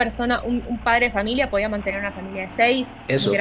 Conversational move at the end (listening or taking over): taking over